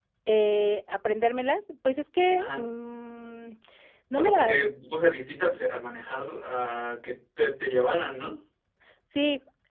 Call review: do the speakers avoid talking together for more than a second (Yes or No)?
Yes